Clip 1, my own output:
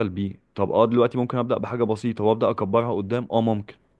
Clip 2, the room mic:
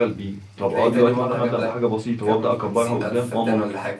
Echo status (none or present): present